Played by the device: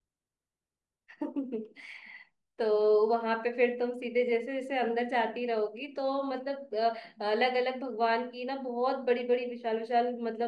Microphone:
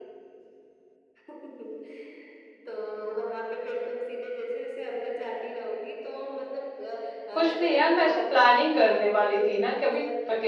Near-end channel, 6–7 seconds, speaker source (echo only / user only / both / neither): echo only